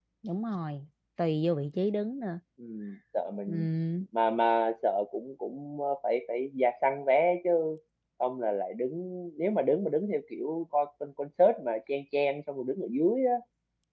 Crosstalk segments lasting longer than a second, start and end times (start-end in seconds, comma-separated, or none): none